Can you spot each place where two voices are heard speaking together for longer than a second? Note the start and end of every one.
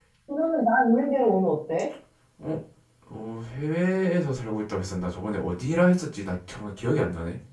none

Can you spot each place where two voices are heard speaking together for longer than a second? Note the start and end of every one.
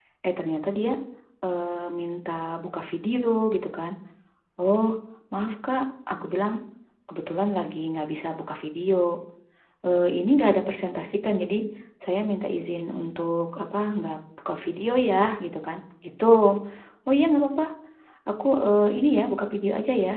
none

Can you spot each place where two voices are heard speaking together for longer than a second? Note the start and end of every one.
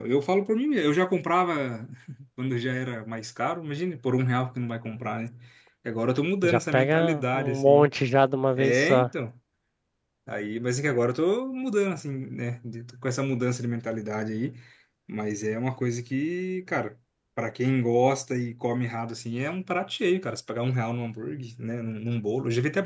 6.4-7.9

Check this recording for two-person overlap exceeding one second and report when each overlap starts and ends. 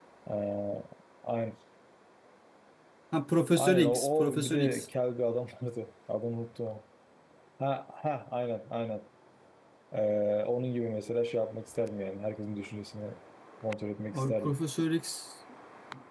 3.5-4.9

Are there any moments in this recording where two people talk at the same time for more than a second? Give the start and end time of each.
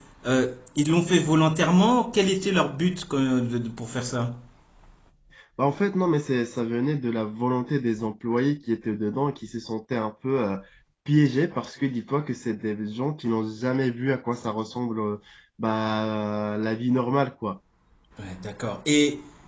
none

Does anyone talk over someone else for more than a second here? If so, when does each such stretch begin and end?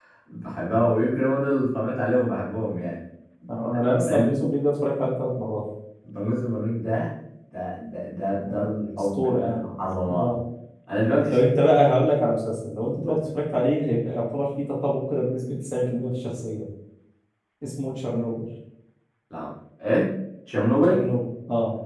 8.5-9.7

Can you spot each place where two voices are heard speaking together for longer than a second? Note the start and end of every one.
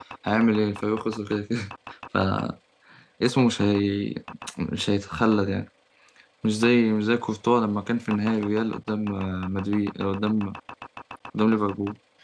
none

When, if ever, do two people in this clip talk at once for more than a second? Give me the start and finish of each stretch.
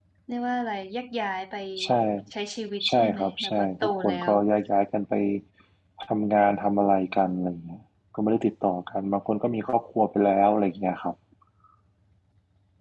2.9-4.3

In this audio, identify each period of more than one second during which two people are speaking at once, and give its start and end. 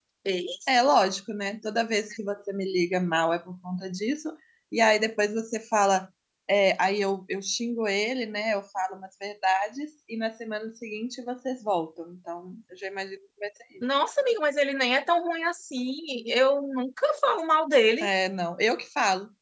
none

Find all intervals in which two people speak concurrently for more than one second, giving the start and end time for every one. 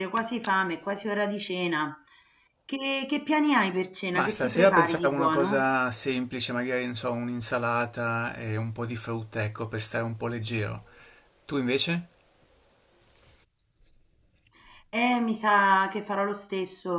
4.1-5.6

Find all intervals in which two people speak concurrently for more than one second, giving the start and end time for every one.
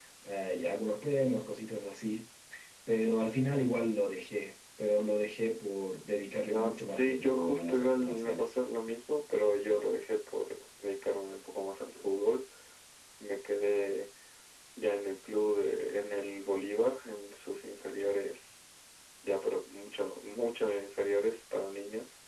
6.5-8.5

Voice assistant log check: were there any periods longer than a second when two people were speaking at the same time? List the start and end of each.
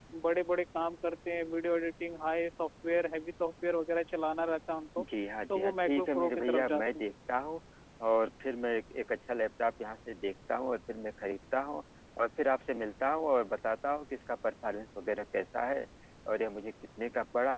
5.5-7.1

